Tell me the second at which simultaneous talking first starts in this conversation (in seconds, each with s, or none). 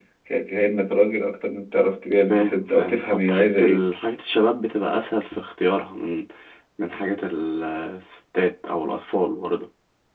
2.3 s